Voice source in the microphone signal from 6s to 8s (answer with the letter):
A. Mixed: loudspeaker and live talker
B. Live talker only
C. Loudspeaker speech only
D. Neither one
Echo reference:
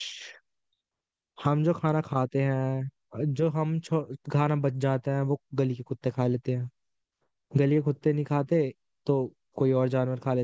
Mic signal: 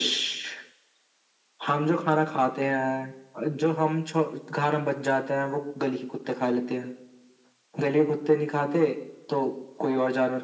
C